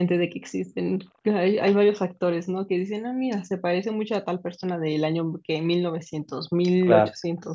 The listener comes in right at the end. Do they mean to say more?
No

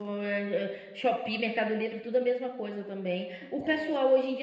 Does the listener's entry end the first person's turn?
No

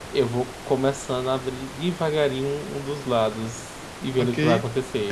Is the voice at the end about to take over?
Yes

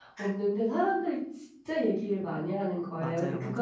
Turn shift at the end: No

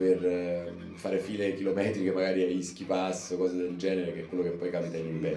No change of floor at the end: No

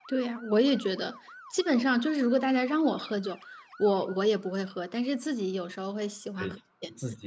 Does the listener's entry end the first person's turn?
Yes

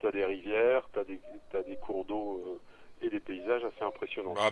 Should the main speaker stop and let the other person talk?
Yes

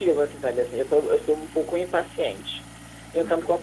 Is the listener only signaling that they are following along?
Yes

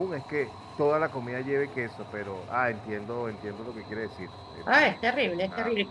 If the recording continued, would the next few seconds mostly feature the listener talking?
Yes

